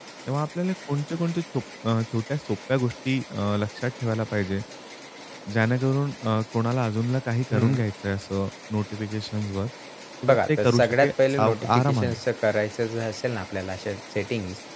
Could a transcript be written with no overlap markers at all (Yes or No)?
No